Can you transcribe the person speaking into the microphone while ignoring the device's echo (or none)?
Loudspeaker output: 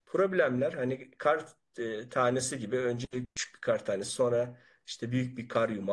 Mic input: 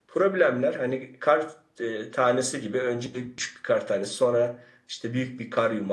none